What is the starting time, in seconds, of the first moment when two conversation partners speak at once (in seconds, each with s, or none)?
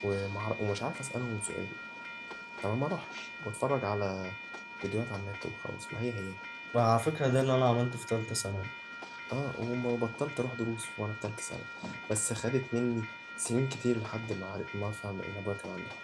none